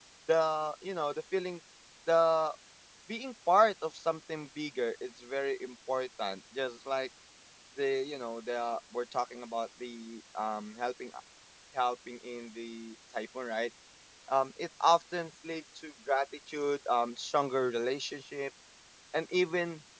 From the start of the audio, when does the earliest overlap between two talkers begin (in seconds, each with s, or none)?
none